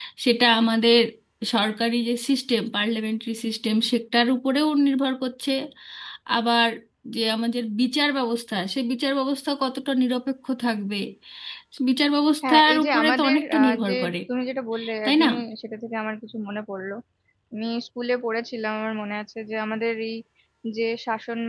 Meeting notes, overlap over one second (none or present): present